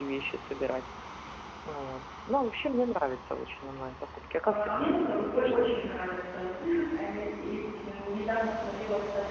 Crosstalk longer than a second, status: present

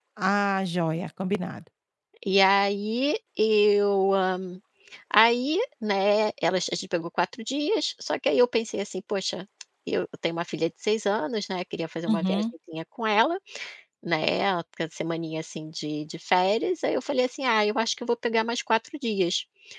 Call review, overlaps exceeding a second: none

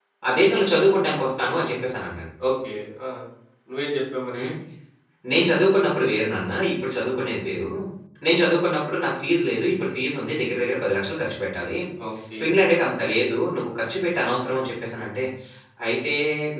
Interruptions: none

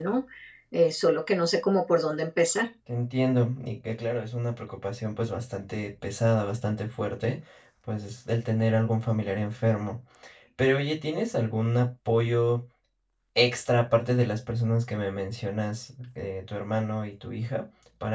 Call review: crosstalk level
none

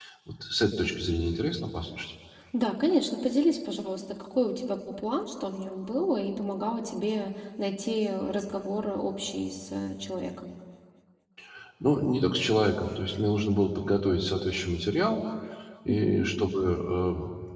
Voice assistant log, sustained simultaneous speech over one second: none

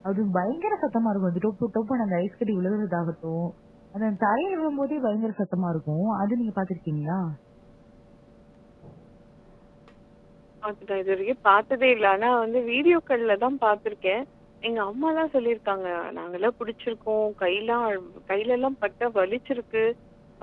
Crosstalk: none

